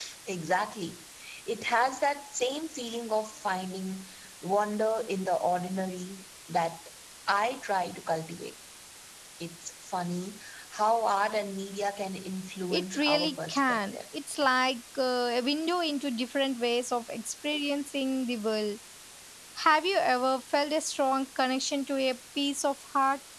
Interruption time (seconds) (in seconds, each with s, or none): 12.7 s